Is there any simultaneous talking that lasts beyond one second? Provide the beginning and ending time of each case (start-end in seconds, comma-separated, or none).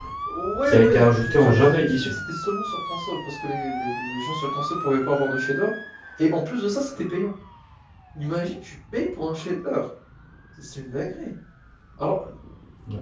0.6-2.1